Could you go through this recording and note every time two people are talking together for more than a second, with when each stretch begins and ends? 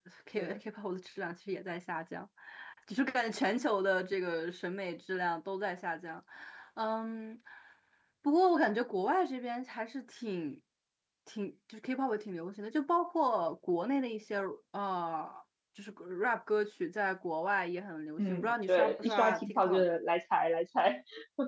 18.2-19.8

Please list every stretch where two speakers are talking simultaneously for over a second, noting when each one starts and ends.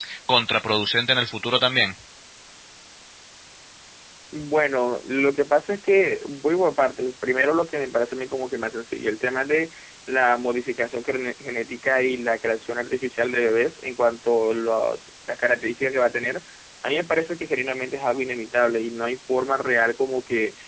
none

